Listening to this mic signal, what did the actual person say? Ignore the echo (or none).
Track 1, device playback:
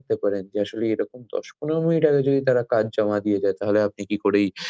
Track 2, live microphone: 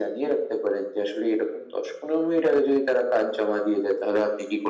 none